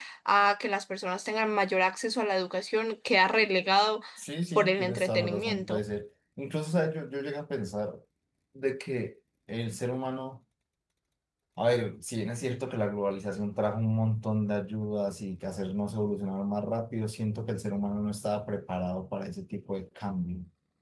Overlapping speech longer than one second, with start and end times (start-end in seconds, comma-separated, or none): 4.5-5.8